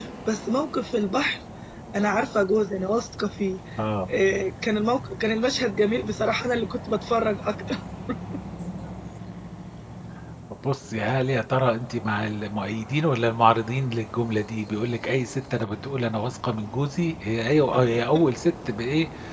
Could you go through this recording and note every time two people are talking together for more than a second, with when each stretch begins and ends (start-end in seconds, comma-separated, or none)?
none